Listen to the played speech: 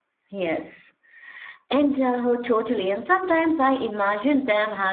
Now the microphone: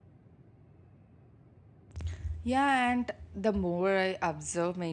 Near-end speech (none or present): present